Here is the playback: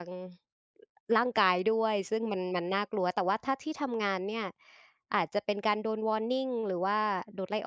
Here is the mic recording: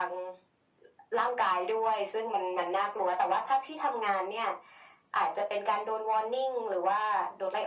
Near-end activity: none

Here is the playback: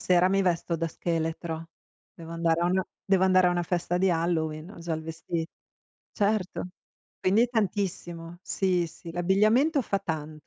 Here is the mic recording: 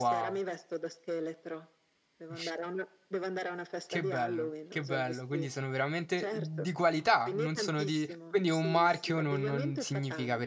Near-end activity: present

